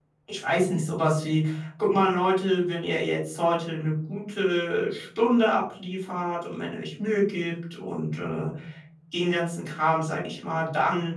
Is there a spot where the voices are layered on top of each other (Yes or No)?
No